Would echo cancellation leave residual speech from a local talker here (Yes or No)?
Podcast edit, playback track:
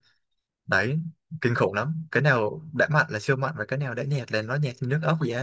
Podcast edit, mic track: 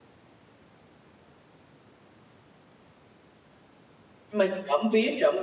Yes